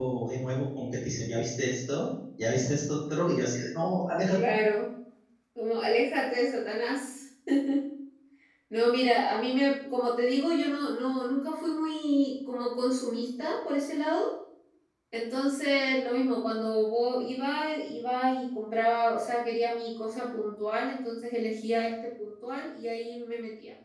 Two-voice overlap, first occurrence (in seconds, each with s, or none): none